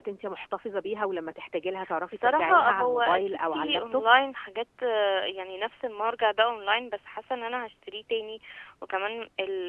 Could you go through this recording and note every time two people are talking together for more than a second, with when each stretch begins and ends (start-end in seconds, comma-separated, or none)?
2.1-4.0